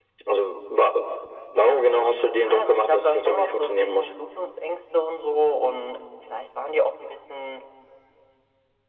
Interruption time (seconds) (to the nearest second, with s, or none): 2 s